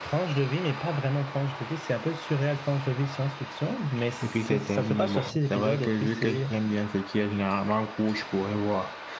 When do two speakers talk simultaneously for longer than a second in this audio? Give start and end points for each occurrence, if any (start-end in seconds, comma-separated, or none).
4.2-6.5